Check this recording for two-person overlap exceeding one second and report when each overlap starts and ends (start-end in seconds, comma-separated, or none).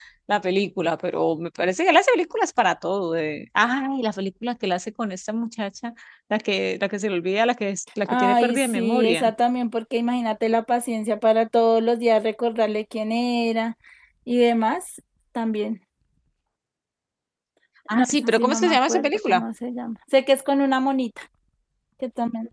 8.1-9.3, 17.9-19.4